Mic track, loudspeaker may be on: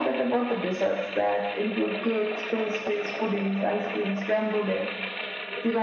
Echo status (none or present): present